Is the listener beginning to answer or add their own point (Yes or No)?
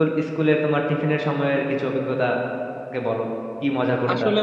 Yes